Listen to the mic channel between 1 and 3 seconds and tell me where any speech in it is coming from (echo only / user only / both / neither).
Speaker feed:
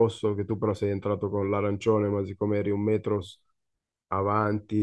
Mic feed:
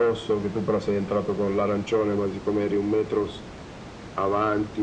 echo only